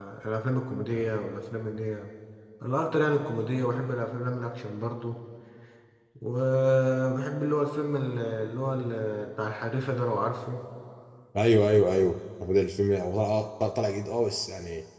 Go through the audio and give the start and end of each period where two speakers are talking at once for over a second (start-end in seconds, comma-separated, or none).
none